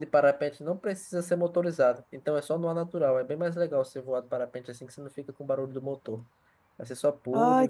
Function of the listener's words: taking over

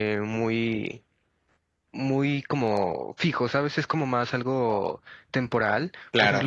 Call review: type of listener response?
listening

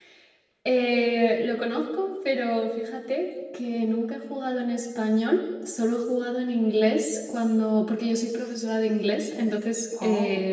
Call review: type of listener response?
listening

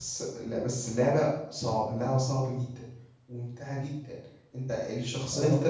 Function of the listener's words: listening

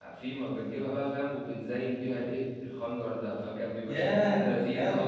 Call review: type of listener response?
taking over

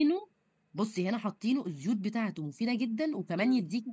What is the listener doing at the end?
taking over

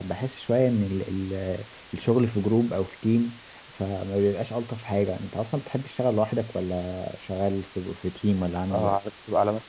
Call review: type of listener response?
taking over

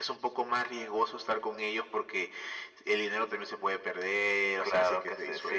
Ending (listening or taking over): taking over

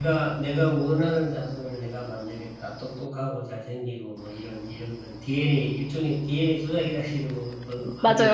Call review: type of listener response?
taking over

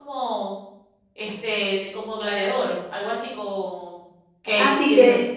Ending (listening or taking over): taking over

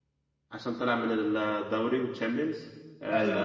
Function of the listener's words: listening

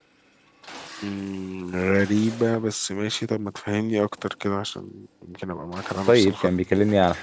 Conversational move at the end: taking over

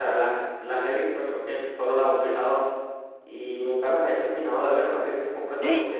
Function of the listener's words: listening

